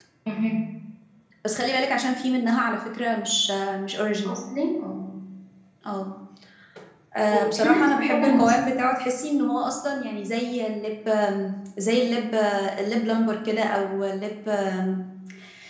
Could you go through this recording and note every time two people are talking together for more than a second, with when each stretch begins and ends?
7.3-8.5

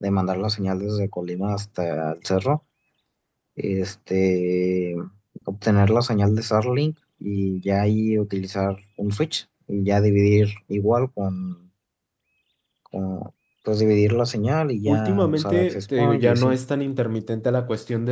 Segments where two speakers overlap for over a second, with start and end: 14.9-16.6

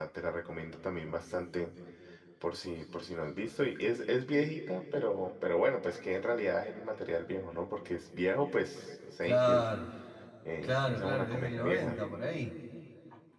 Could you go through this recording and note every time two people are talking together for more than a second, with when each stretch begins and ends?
10.6-12.0

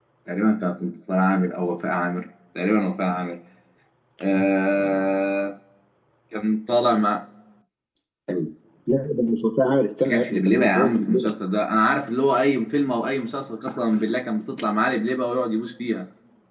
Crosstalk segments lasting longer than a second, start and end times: 10.0-11.3

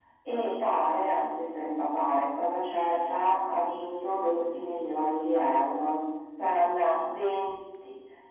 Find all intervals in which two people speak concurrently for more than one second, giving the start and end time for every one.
none

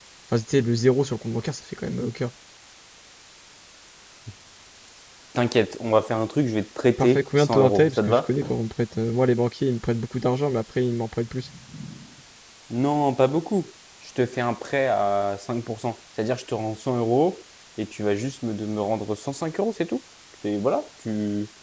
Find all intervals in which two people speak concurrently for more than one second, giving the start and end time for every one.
7.0-8.3

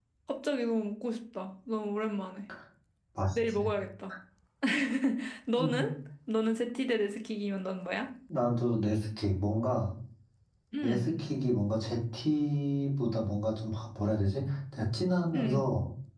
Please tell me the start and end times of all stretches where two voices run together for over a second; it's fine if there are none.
none

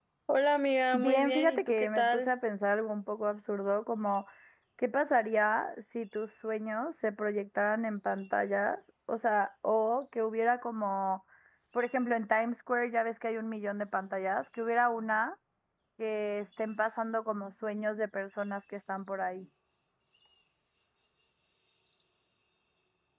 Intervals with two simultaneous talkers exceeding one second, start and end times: 0.9-2.3

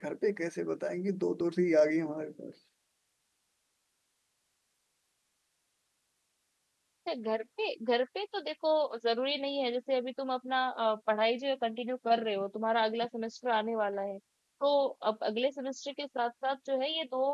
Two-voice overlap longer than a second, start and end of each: none

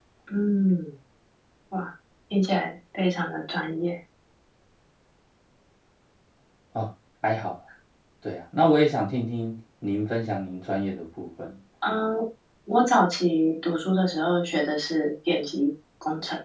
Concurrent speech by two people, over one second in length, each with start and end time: none

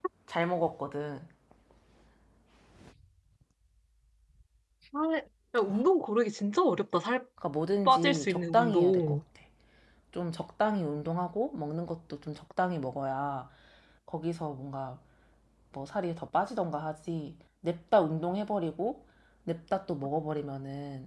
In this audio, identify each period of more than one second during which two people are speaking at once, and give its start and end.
7.8-9.2

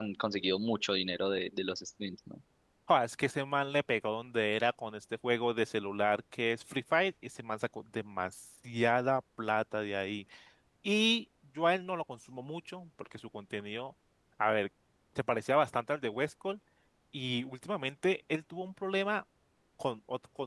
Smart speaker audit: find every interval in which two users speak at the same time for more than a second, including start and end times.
none

